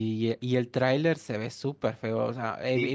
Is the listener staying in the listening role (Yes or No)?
Yes